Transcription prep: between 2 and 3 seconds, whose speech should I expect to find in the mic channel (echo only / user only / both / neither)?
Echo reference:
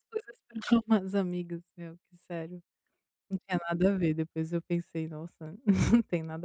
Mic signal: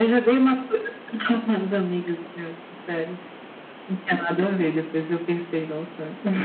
echo only